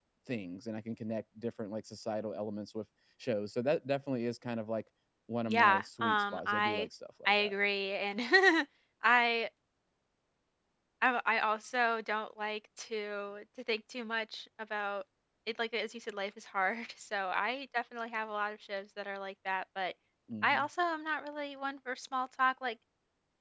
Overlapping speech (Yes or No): Yes